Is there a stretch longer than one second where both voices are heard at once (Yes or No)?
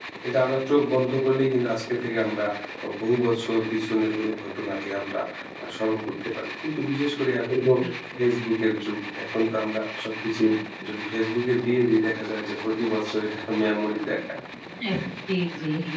No